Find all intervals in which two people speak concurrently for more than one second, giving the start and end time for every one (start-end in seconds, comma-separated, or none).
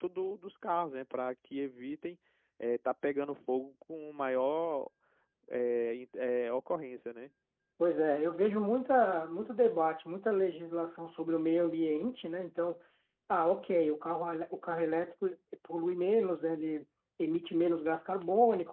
none